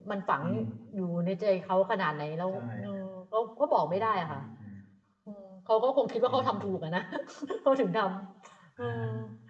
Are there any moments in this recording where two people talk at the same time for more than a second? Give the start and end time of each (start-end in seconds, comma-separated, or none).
none